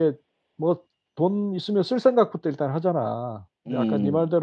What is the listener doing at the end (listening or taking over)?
listening